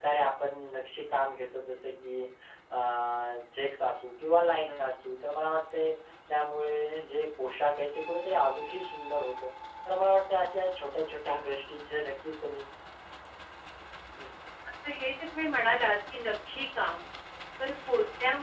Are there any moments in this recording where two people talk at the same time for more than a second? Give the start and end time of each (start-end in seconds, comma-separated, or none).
none